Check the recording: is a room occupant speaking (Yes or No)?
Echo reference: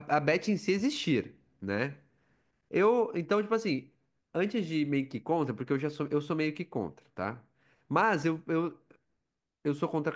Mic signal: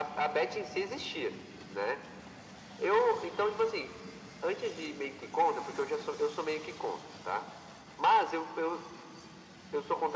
No